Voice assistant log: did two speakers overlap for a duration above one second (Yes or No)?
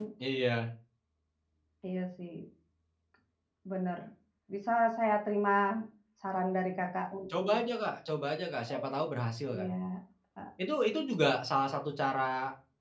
No